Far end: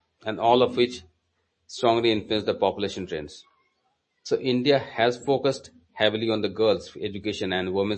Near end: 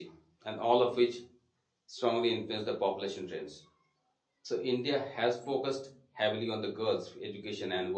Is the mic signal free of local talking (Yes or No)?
Yes